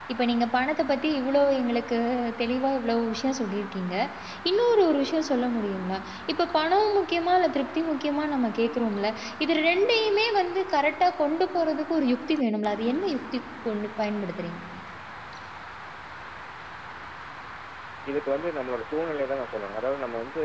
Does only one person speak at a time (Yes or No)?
Yes